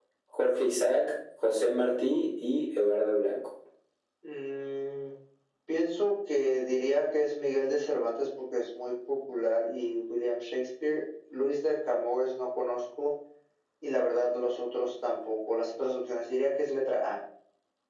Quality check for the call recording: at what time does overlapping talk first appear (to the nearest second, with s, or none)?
none